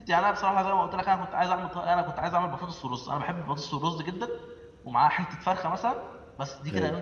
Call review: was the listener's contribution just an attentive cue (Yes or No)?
Yes